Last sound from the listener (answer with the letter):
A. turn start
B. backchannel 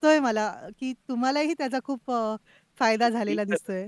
A